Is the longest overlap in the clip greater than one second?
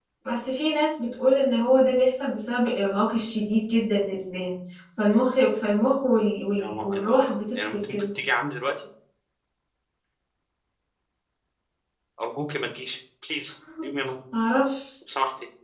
Yes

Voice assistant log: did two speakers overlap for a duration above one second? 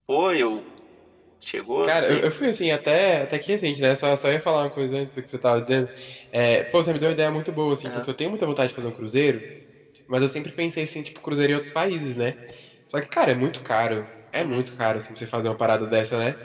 No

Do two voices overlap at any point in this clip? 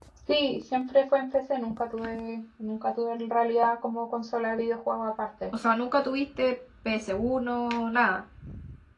No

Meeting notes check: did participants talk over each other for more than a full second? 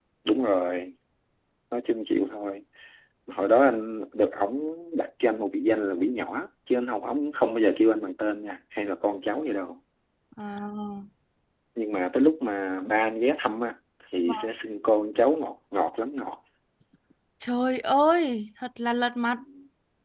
No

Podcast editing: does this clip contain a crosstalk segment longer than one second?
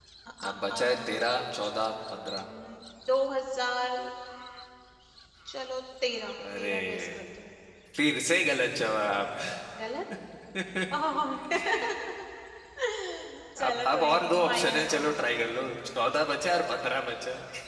Yes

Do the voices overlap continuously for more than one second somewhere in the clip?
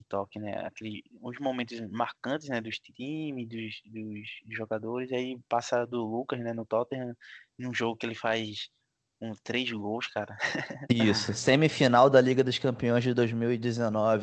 No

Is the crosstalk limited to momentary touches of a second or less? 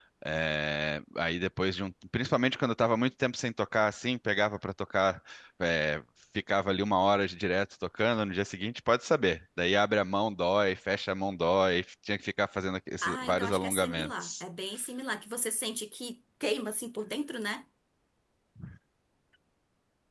No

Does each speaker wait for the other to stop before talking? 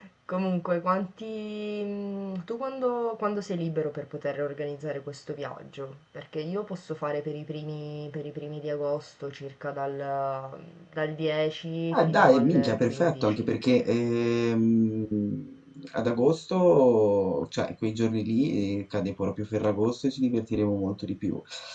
No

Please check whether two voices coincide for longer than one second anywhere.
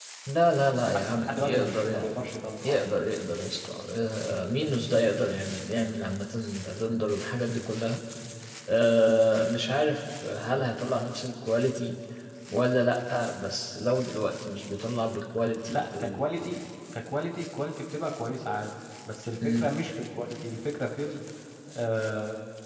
Yes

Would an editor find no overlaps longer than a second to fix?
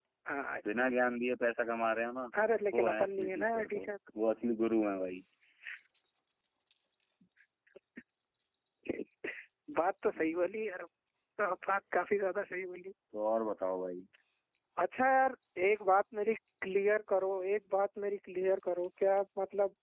No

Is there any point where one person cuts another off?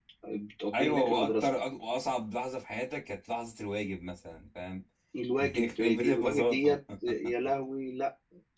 Yes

